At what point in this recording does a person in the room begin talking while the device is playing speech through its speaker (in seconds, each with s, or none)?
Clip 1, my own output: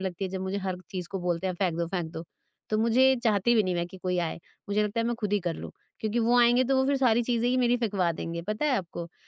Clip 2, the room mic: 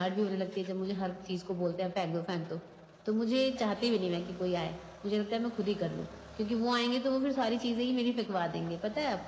none